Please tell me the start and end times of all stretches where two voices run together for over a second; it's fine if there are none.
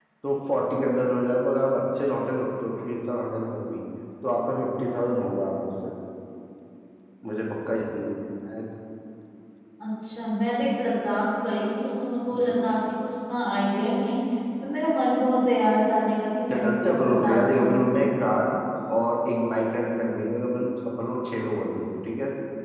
16.5-17.9

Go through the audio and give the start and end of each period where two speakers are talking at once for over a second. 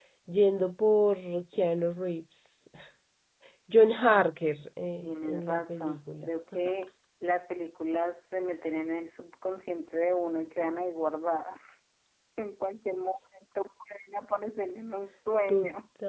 5.0-6.3

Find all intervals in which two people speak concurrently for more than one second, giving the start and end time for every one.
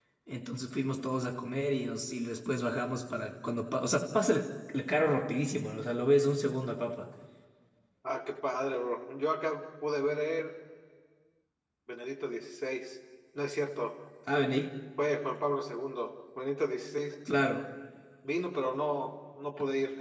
none

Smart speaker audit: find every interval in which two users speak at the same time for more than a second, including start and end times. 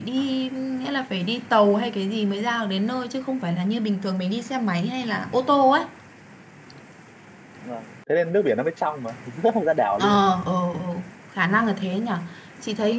none

